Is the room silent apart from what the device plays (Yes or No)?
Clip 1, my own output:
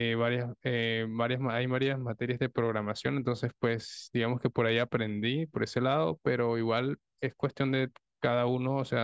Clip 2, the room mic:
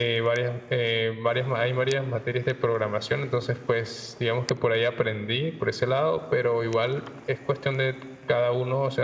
Yes